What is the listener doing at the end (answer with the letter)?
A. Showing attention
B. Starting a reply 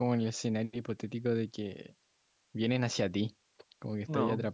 B